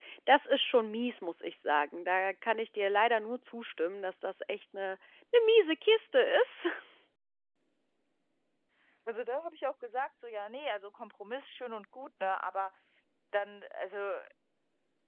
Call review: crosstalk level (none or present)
none